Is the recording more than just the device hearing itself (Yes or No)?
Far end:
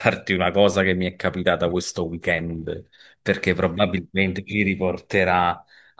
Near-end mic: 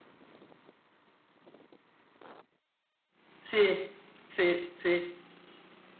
Yes